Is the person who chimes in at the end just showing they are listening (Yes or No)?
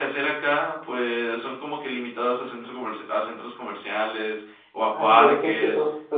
No